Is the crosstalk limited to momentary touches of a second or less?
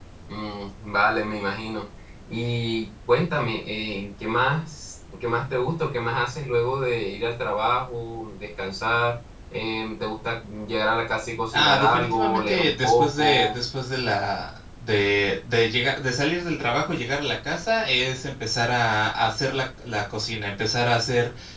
No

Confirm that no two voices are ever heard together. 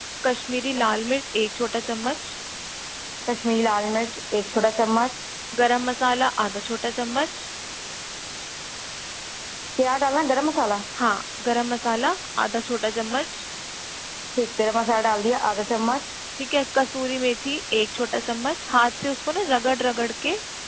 Yes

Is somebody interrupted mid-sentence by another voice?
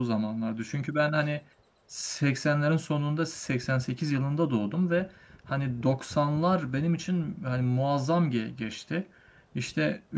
No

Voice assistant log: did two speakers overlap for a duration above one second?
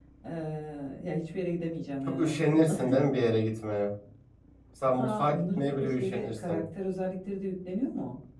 Yes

